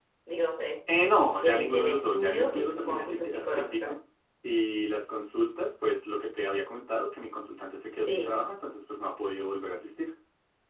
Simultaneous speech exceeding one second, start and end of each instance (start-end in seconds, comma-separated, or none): 1.4-3.9